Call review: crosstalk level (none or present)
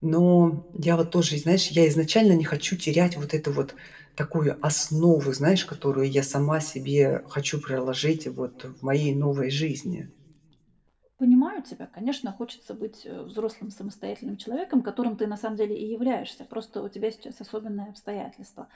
none